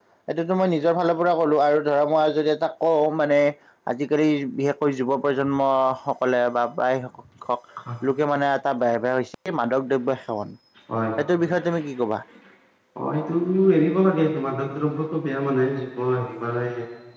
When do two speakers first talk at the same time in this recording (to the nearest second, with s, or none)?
none